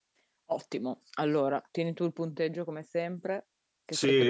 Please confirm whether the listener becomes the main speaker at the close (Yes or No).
Yes